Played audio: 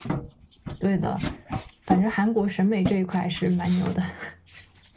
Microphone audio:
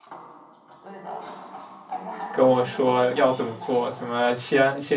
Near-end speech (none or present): present